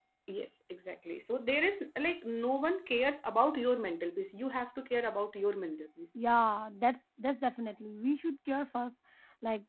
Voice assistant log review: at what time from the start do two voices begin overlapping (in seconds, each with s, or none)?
none